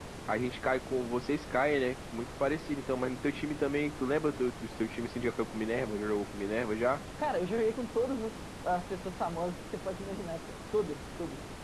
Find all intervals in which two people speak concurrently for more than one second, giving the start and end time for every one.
none

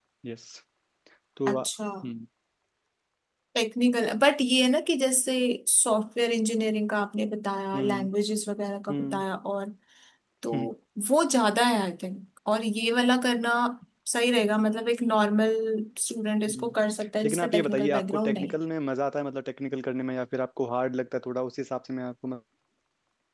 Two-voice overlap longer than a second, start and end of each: 17.2-18.6

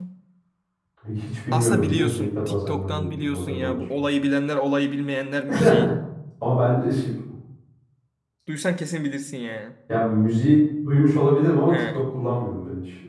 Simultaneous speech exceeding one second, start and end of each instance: 1.5-3.8

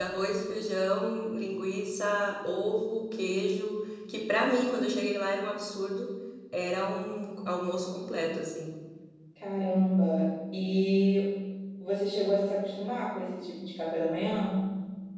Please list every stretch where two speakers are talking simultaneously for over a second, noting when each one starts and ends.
none

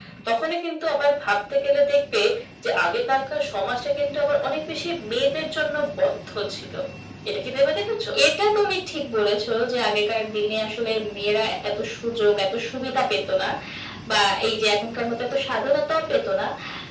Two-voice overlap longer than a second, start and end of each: none

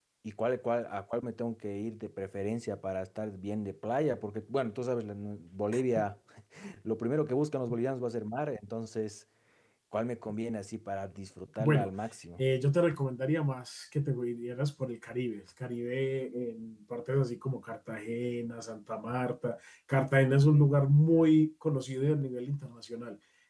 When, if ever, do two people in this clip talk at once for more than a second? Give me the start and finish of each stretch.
none

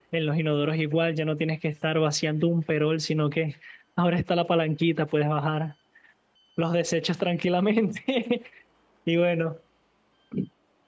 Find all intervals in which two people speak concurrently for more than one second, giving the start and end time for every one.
none

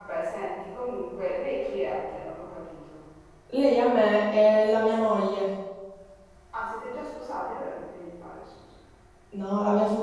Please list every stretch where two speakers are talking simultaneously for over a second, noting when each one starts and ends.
none

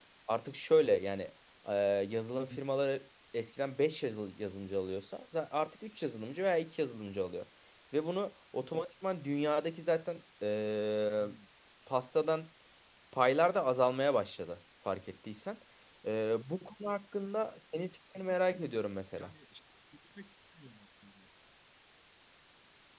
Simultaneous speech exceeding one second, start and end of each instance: none

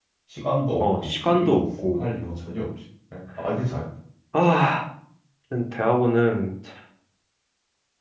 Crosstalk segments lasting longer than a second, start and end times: 0.8-2.1

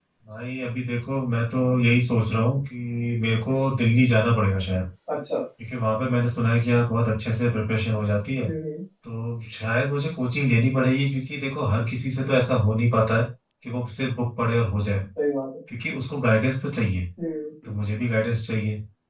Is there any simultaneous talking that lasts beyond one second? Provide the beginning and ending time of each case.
none

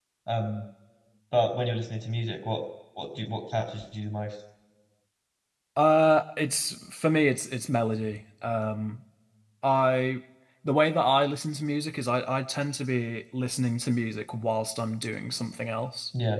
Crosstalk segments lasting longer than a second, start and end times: none

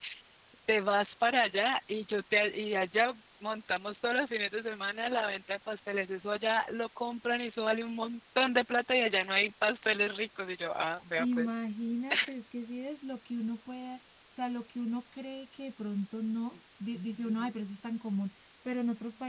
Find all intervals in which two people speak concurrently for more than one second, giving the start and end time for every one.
none

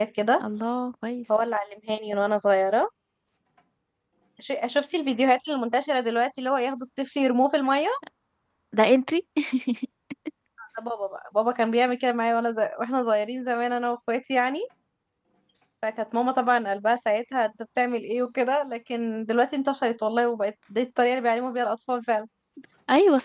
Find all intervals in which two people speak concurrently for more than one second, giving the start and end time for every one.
none

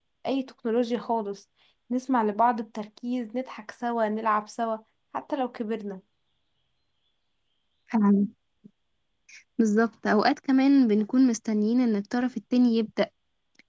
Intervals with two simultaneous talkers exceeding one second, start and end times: none

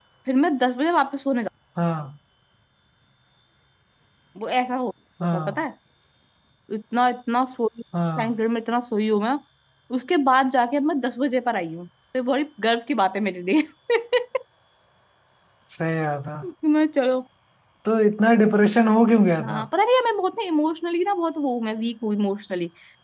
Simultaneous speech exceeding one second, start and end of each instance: none

